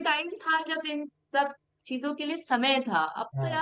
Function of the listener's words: listening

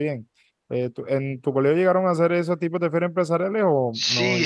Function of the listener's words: taking over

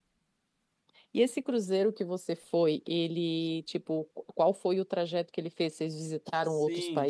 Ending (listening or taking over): taking over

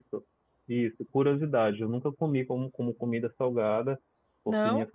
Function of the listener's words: listening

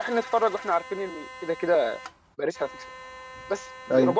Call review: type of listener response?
listening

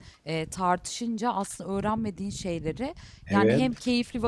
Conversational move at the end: listening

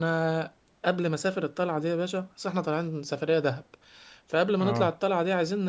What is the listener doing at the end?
listening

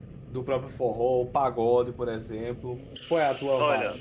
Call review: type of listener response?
taking over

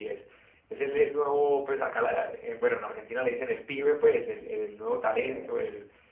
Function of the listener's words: listening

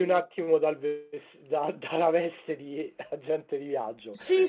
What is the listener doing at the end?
taking over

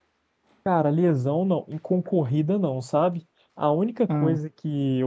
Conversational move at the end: listening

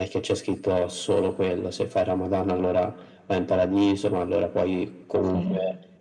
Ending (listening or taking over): listening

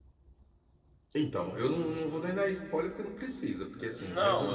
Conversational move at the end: taking over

